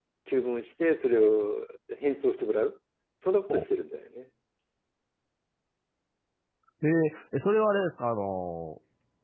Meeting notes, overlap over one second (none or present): none